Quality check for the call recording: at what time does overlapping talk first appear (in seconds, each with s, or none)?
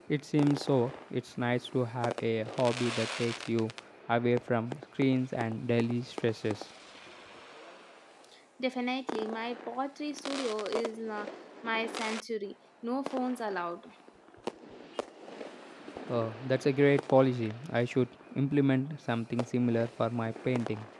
none